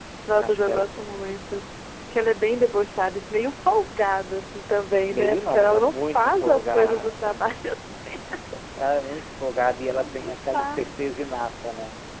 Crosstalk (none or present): present